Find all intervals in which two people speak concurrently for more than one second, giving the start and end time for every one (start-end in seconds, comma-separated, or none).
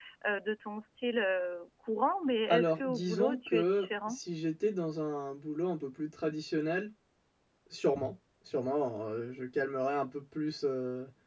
2.5-4.2